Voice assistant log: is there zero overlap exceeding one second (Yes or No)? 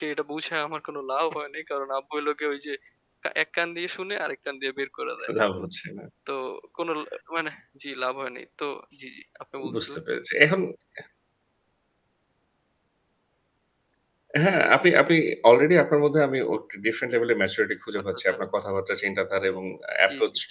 Yes